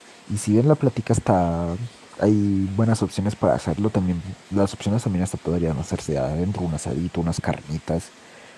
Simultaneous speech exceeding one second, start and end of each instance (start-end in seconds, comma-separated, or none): none